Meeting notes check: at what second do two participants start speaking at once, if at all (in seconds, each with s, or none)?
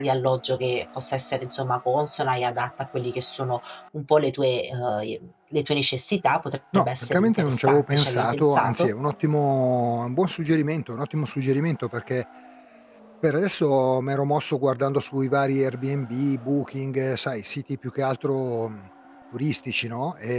6.7 s